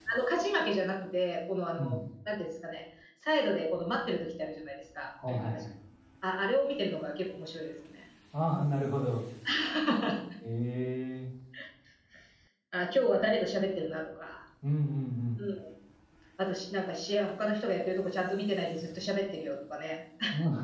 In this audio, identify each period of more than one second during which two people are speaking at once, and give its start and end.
none

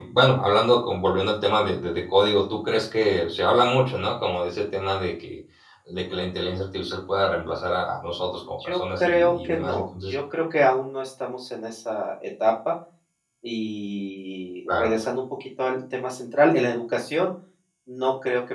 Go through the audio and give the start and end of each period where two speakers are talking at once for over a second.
8.3-10.1

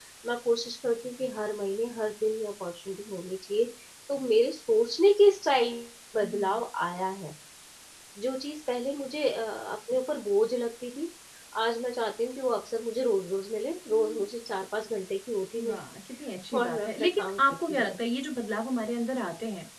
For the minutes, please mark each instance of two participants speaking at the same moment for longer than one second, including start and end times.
16.6-18.0

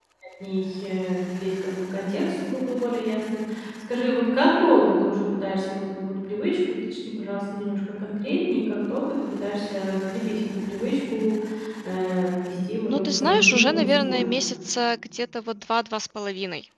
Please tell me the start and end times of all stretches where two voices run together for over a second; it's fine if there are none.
12.9-14.2

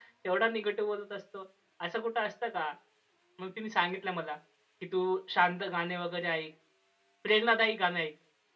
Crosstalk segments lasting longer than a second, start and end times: none

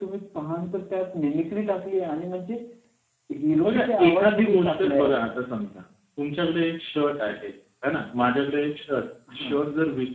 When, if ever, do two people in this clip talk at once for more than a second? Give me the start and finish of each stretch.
3.6-5.3

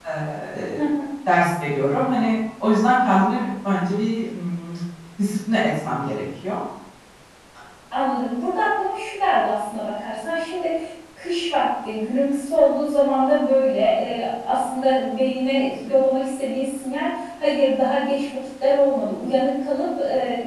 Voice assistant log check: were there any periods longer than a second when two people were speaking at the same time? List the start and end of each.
none

